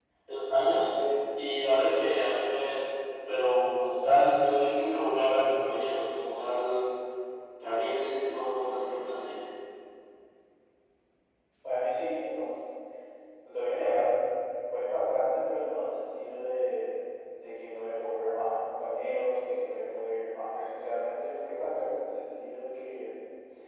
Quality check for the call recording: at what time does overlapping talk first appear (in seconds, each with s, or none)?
none